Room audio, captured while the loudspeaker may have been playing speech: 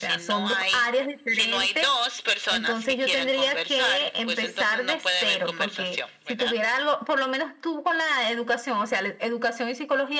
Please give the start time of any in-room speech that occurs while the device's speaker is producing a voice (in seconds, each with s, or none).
none